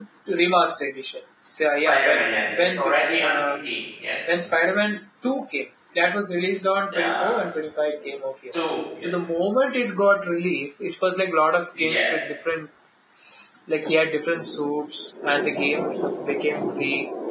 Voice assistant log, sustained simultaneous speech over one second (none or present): present